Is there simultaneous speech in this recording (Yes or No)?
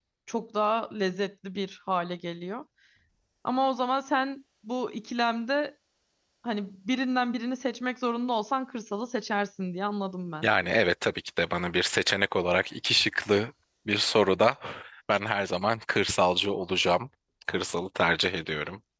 No